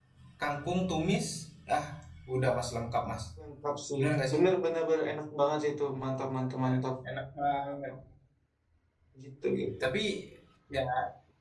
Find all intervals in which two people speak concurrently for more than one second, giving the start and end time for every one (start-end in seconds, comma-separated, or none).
none